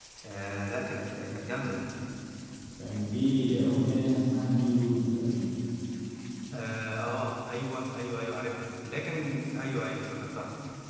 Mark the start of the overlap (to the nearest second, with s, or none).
none